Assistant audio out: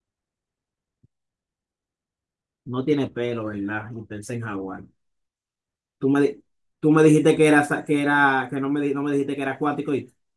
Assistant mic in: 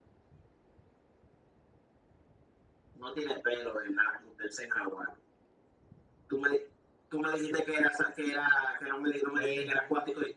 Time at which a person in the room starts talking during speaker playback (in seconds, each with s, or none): 9.3 s